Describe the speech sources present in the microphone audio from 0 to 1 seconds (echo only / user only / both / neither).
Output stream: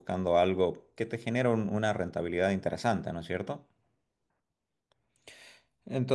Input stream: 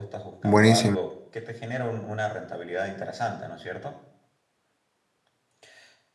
both